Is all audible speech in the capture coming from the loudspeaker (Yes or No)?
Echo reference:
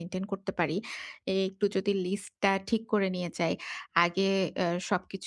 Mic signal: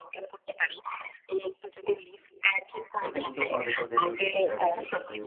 No